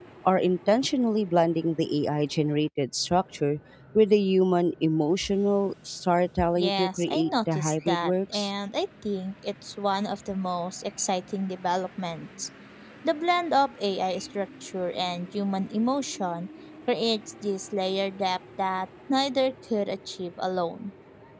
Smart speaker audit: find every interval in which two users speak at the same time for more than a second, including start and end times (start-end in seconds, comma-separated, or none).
6.6-8.5